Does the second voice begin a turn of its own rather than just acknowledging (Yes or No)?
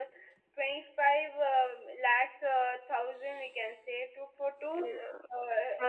Yes